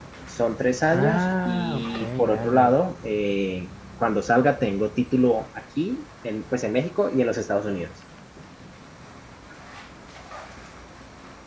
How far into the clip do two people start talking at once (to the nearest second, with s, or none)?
1 s